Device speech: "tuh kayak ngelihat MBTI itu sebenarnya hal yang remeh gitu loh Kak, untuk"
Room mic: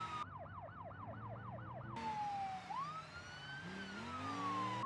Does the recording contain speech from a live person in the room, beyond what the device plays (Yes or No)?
No